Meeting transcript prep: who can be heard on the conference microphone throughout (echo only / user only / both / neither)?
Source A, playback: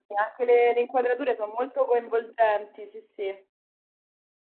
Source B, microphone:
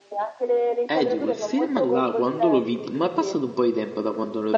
both